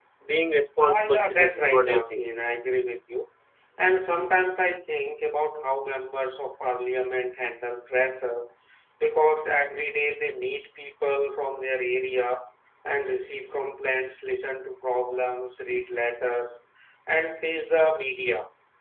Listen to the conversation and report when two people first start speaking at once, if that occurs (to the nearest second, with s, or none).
1 s